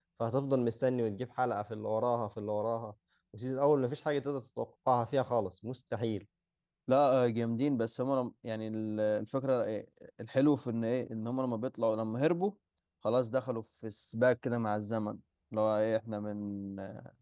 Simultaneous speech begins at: none

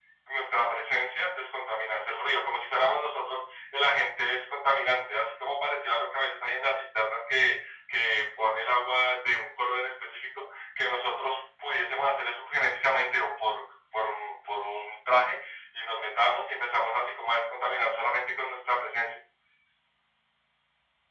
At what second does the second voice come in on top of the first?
none

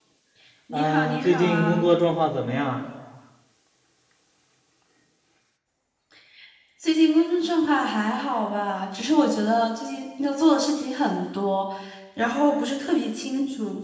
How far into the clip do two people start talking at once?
1 s

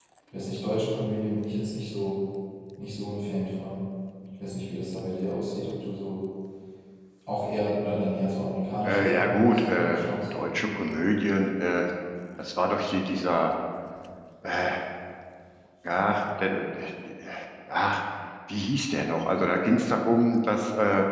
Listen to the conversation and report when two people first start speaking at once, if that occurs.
9 s

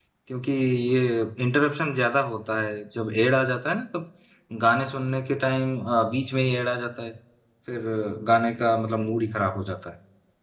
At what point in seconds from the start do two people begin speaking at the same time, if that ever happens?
none

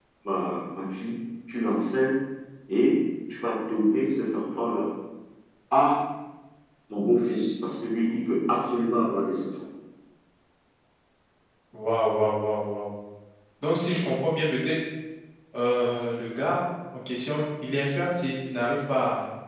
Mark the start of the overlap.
none

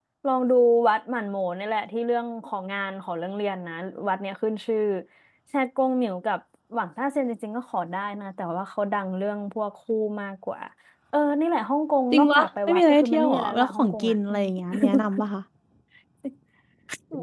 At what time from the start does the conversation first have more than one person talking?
12 s

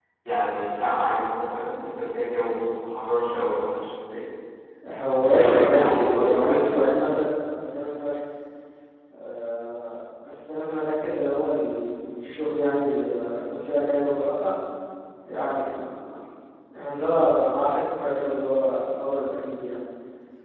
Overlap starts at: 5 s

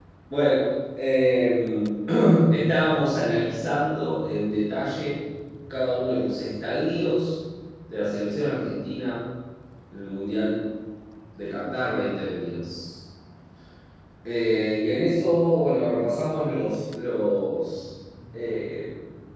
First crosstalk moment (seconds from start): none

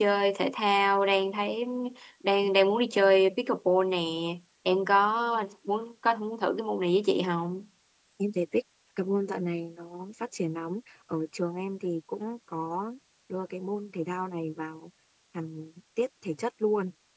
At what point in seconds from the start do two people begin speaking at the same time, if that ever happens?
none

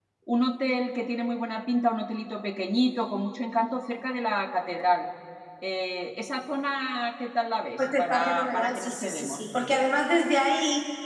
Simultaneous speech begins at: 8 s

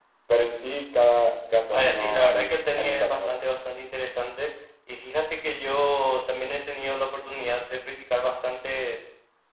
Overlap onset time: 2 s

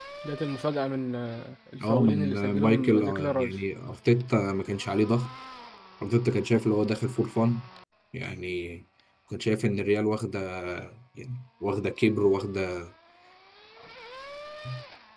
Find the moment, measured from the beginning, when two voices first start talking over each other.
2 s

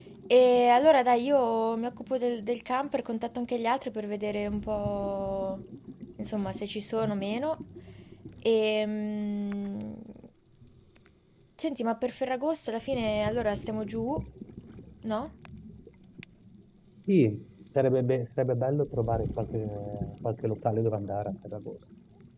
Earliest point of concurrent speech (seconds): none

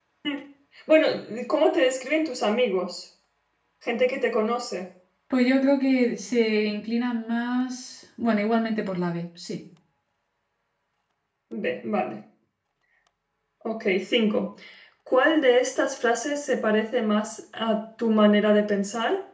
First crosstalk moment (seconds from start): none

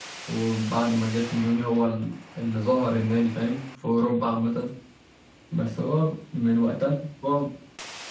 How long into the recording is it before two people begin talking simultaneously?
none

